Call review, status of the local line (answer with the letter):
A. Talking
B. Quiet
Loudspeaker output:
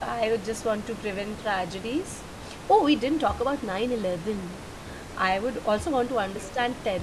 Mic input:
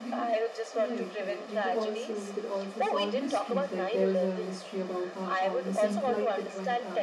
A